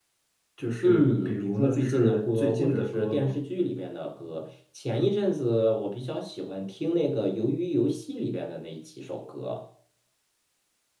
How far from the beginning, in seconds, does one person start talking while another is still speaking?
1 s

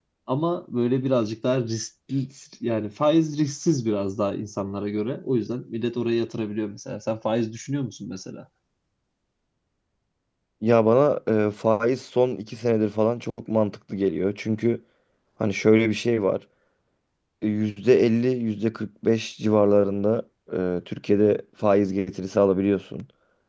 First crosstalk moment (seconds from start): none

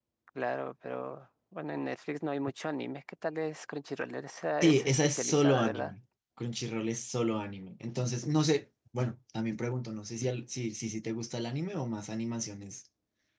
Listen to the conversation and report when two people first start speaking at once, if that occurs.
5 s

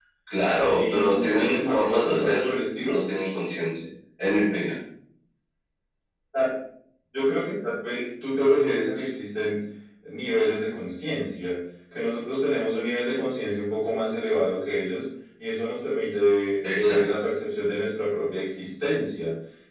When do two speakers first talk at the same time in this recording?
1 s

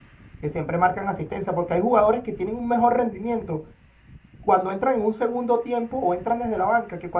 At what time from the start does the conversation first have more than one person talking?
none

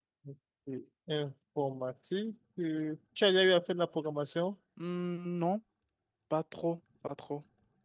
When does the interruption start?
none

